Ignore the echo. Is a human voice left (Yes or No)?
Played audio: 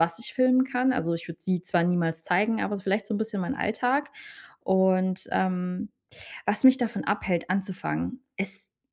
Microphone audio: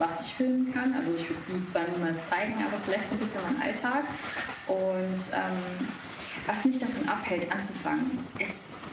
No